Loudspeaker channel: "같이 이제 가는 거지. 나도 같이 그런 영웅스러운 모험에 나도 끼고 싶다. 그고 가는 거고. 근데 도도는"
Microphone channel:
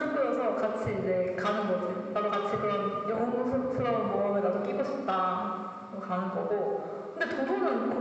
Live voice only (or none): none